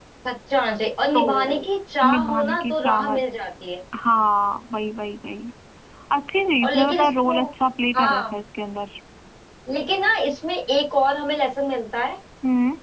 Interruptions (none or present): present